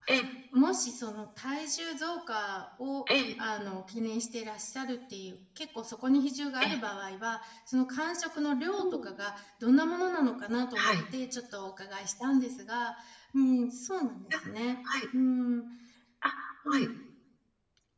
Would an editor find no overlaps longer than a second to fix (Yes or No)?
Yes